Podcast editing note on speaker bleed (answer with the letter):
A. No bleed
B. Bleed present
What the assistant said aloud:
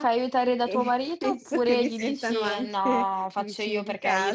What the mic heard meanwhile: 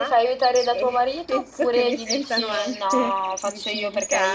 B